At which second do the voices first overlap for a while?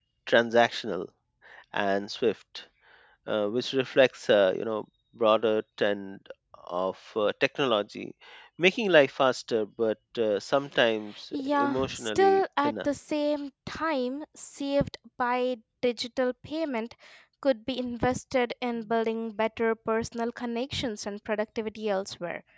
11.3 s

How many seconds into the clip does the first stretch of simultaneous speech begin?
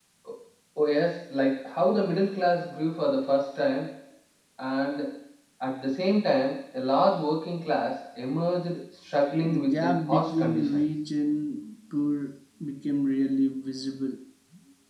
9.4 s

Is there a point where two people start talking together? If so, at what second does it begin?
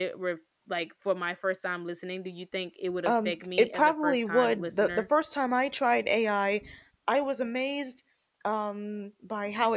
3.0 s

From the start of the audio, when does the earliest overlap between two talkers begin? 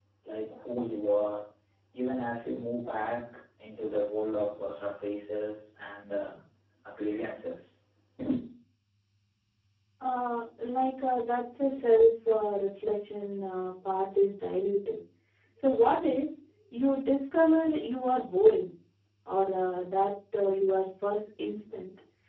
none

